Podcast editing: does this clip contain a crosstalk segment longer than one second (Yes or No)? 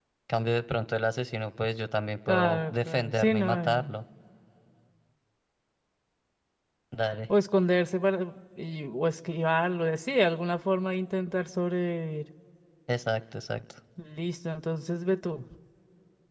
Yes